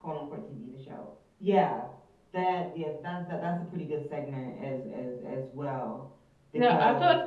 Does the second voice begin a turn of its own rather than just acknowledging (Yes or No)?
Yes